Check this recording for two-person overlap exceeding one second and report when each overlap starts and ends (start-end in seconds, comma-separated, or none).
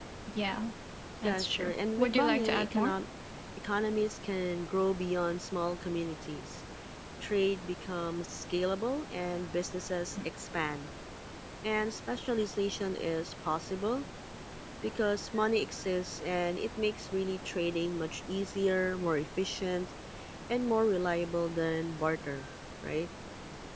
1.2-3.0